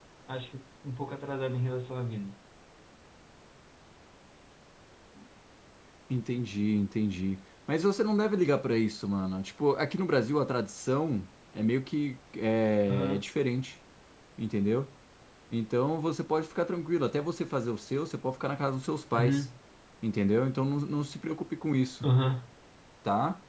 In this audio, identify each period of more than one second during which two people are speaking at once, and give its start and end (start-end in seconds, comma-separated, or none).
none